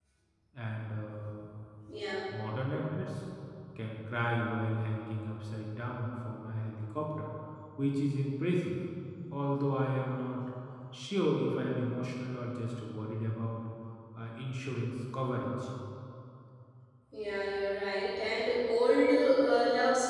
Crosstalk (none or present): none